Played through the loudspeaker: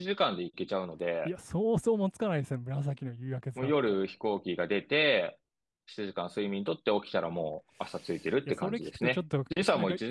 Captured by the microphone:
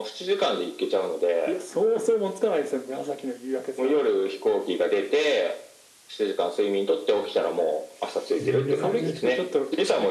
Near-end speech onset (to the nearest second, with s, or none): 8 s